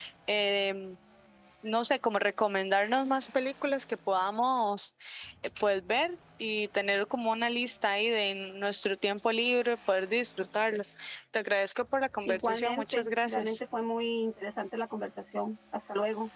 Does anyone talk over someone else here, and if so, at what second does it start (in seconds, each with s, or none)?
12.2 s